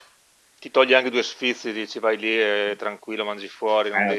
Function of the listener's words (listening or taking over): taking over